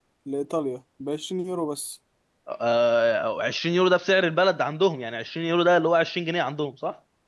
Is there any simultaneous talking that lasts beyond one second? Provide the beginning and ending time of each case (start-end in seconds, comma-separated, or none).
none